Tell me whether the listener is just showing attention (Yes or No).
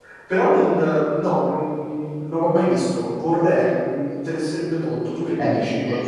No